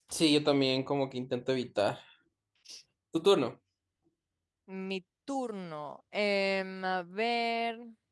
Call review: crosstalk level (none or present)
none